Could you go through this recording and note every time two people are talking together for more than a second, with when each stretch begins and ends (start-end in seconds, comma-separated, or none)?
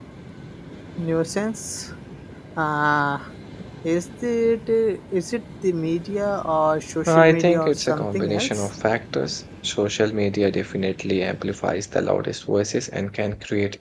7.1-8.7